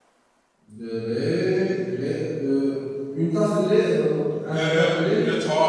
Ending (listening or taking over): taking over